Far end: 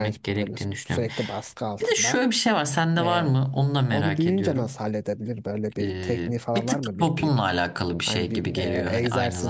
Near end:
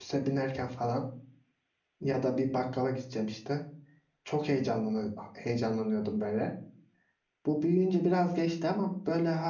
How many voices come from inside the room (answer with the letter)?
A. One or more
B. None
A